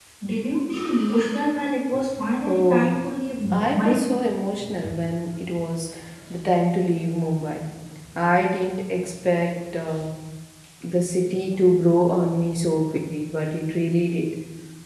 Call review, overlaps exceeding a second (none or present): none